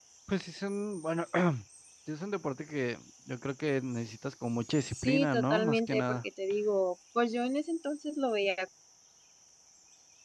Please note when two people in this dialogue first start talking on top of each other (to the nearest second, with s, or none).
5 s